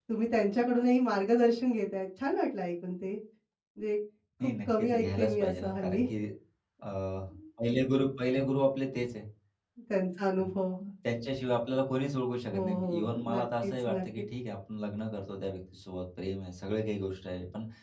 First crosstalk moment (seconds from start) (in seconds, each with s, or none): 4.7 s